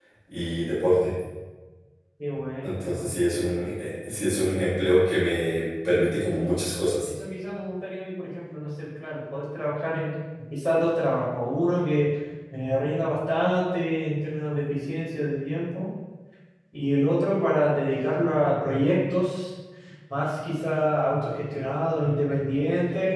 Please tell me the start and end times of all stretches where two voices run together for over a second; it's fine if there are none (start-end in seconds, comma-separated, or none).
none